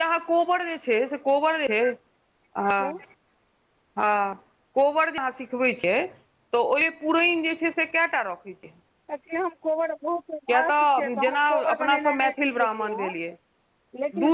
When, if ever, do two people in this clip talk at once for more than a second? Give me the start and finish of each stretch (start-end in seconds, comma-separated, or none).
10.7-13.1